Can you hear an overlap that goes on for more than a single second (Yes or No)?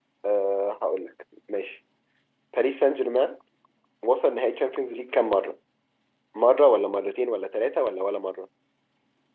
No